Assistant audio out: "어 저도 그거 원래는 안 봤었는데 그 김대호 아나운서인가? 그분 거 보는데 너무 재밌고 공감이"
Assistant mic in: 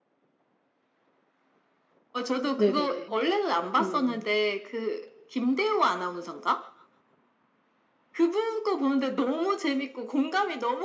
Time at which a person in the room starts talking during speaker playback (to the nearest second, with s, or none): 3 s